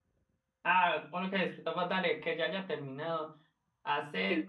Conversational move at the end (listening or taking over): listening